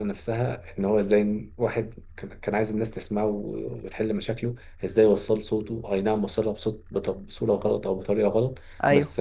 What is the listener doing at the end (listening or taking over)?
listening